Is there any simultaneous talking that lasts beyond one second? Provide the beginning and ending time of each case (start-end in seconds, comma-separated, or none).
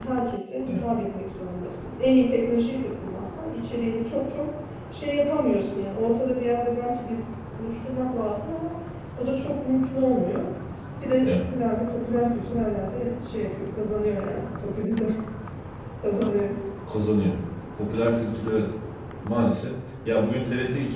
none